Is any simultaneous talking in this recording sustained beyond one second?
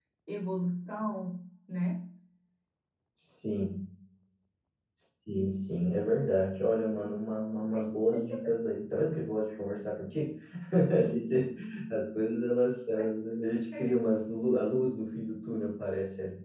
No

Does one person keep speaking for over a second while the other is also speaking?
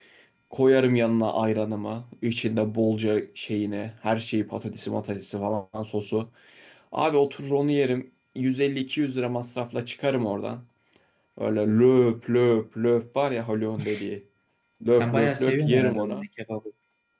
Yes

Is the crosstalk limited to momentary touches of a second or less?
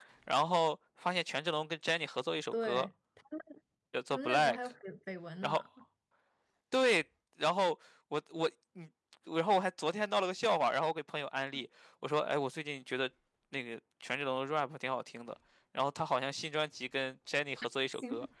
Yes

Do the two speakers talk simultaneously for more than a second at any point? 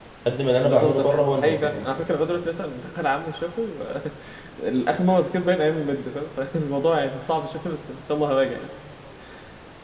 Yes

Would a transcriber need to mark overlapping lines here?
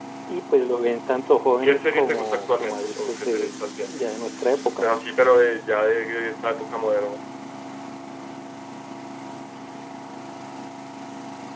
Yes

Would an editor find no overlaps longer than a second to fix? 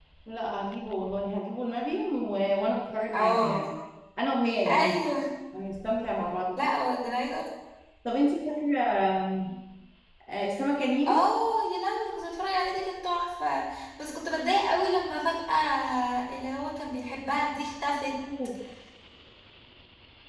Yes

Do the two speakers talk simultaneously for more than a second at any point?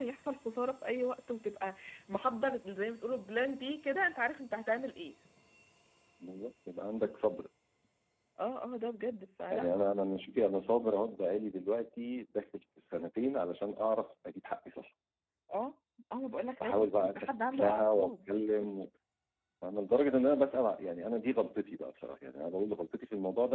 Yes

